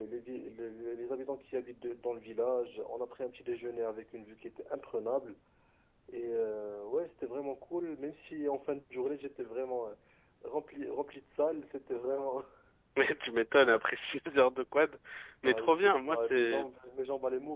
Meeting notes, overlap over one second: present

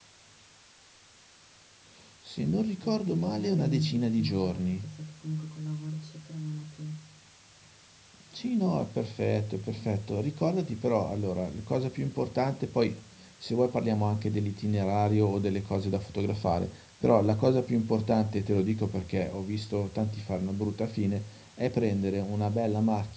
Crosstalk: present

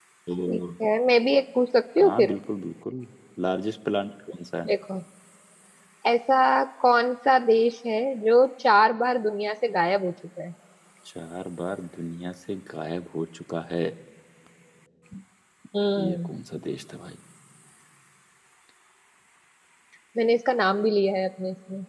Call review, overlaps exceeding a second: none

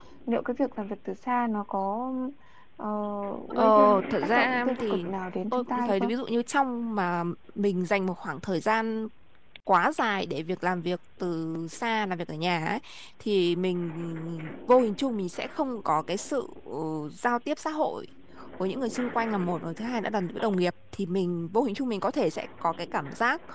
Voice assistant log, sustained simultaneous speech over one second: present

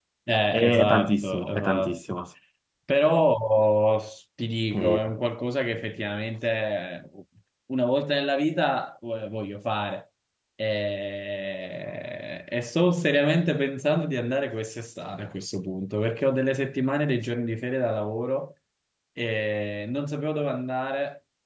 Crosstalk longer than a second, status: present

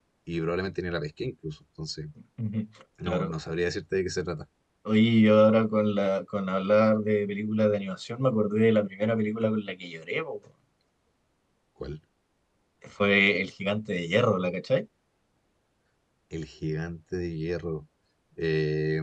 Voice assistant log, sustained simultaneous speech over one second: none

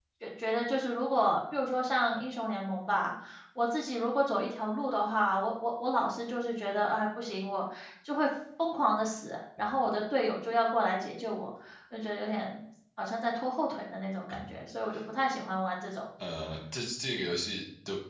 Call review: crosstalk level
none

